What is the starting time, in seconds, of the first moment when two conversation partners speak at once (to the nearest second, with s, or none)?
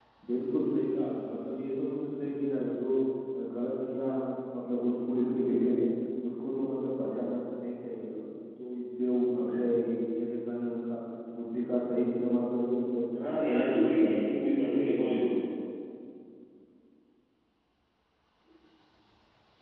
13 s